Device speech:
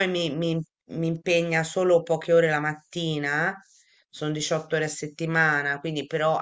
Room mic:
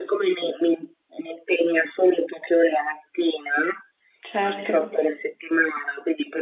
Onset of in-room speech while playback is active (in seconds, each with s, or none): 4.2 s